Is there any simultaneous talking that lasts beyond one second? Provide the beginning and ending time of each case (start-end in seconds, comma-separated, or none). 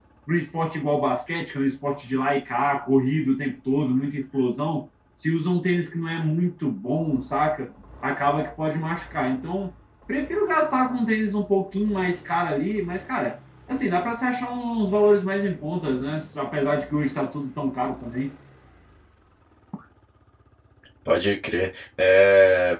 none